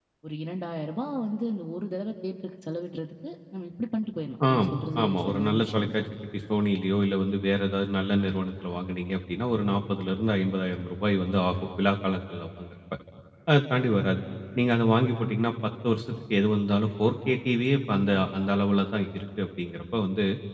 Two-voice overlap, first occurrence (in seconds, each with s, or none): 4.4 s